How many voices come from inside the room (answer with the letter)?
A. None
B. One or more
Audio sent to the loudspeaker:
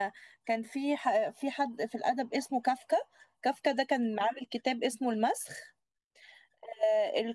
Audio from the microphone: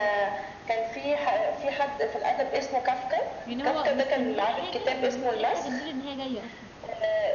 B